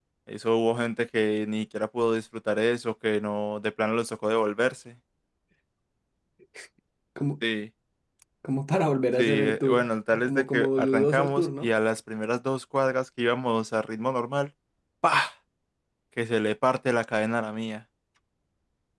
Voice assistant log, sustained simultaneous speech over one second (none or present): present